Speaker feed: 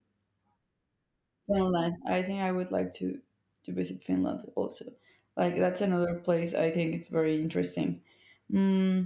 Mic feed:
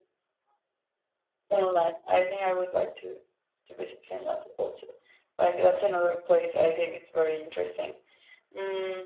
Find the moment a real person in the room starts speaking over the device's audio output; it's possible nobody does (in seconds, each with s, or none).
none